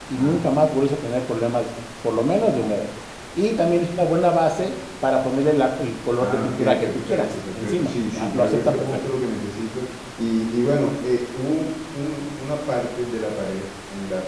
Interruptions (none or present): present